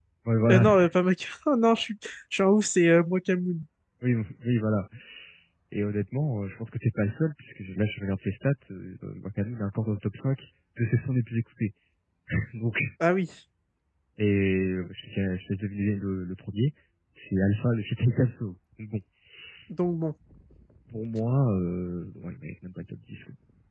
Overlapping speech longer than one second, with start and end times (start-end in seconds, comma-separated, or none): none